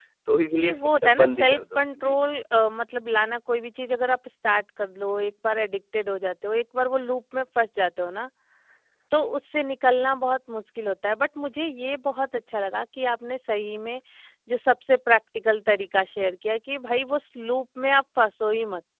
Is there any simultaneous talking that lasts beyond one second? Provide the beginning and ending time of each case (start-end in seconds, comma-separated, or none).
0.6-2.2